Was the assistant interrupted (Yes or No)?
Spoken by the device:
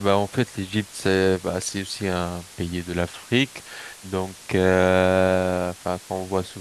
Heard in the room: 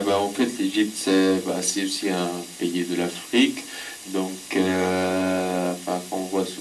No